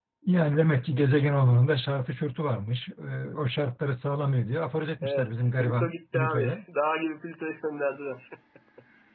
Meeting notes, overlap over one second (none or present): present